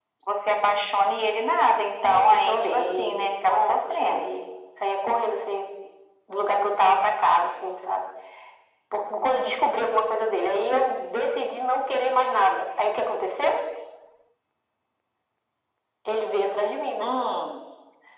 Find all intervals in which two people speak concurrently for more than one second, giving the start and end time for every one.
2.0-4.3

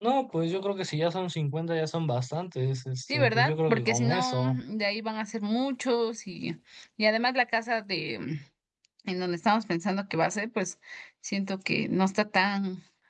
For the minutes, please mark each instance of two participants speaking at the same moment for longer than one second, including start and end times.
3.1-4.6

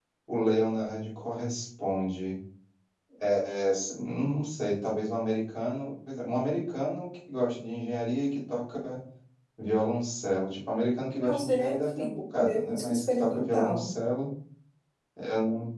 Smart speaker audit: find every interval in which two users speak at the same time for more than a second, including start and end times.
11.2-13.9

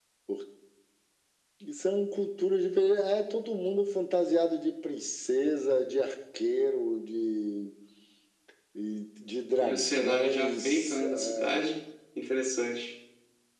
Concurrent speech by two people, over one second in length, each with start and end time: 9.6-11.6

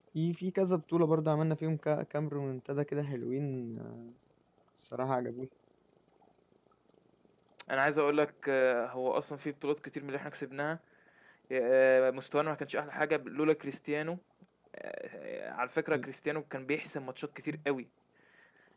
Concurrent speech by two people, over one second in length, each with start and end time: none

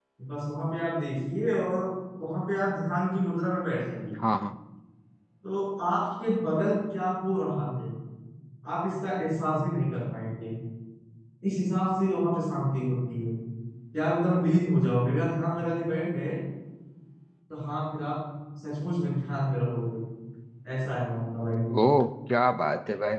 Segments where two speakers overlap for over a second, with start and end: none

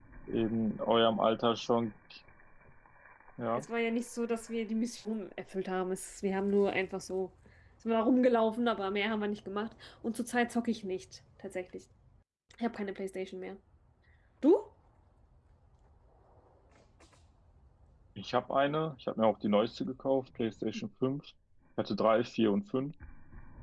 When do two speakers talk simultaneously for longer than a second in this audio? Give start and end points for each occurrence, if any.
none

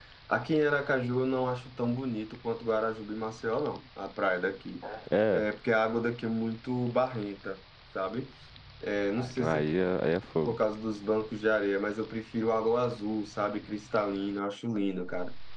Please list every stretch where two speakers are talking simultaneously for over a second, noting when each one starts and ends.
none

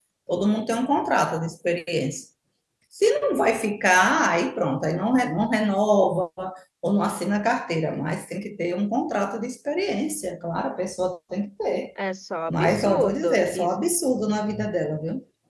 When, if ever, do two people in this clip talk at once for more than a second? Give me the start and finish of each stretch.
12.5-13.7

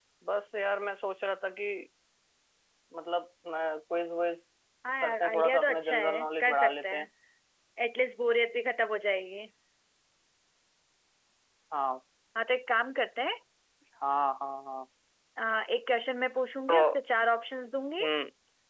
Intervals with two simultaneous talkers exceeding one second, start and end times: 5.0-7.0

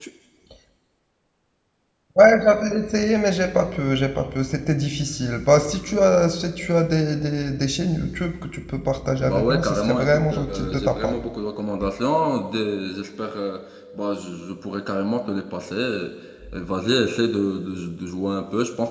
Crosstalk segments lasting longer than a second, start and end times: 9.2-11.2

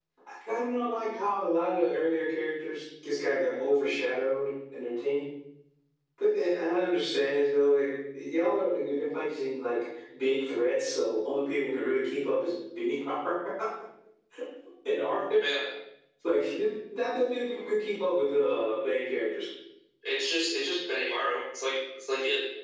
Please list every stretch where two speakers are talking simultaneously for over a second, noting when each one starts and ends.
none

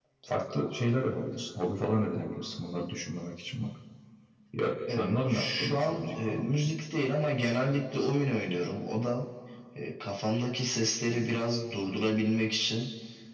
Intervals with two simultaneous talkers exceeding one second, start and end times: 4.9-6.7

